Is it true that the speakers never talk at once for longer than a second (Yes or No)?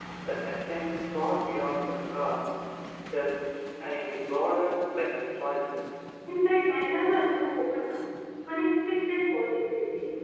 Yes